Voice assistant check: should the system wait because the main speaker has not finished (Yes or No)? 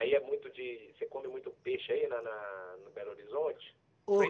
No